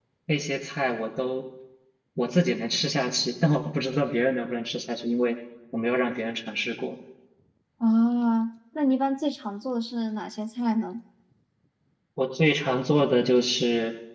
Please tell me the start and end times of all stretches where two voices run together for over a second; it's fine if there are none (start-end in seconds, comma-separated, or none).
none